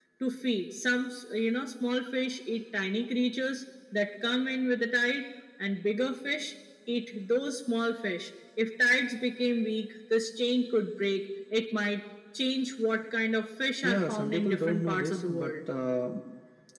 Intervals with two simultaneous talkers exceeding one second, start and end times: 13.8-15.5

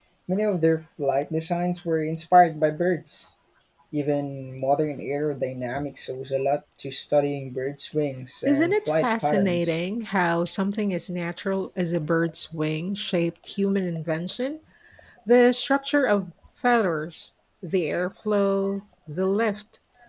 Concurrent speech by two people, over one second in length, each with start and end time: 8.4-9.8

